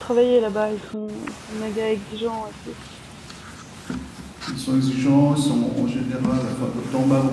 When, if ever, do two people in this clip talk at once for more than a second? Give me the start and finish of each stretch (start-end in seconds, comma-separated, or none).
none